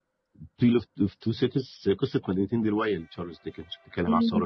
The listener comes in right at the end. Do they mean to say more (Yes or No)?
No